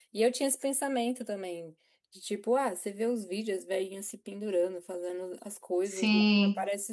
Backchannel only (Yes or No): Yes